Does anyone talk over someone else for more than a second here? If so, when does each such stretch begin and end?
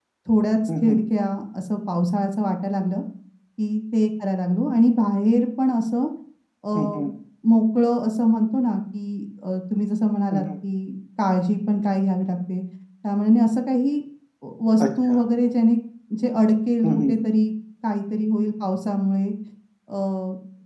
none

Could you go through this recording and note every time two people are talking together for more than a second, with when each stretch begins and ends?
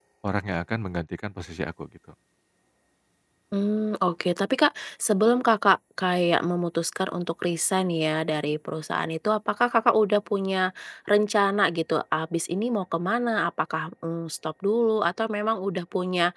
none

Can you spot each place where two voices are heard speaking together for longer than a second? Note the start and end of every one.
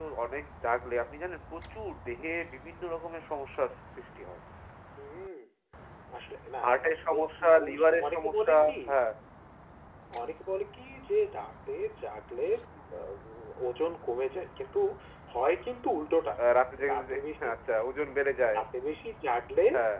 6.6-8.7

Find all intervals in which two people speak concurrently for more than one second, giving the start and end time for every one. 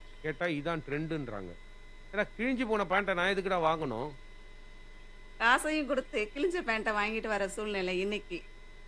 none

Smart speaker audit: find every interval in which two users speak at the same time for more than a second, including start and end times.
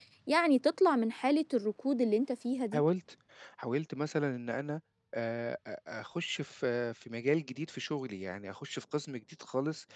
none

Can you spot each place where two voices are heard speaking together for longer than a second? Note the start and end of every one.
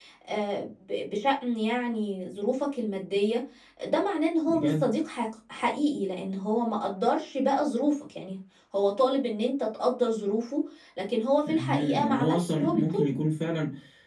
11.5-13.0

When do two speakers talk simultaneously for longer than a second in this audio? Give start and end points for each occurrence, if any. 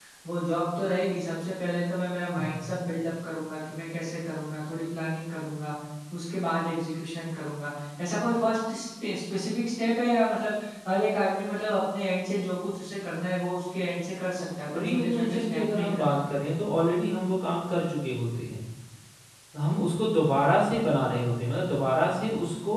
14.8-16.1

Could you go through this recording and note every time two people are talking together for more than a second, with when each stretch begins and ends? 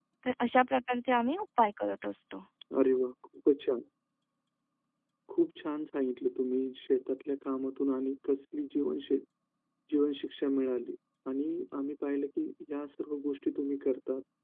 none

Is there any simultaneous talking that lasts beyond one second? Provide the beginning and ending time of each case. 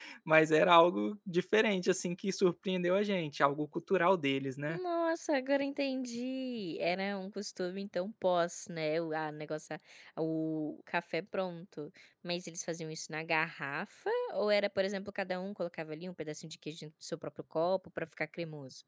none

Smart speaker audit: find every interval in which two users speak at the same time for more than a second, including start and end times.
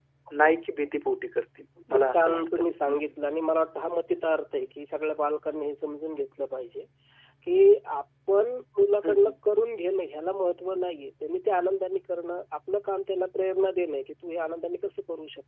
1.9-3.1

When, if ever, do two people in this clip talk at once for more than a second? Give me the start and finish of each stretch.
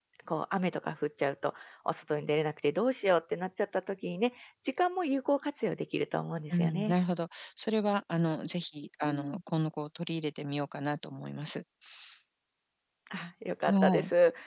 none

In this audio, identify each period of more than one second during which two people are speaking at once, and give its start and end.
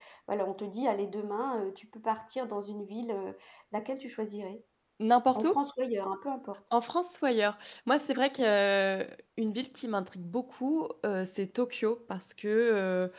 none

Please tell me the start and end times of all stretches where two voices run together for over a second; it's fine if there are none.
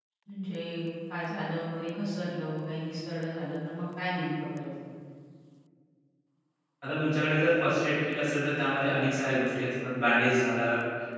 none

